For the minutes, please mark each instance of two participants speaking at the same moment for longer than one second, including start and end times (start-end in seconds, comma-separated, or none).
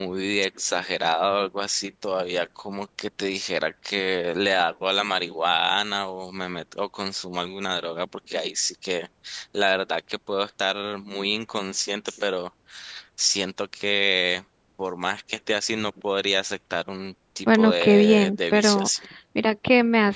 17.5-18.9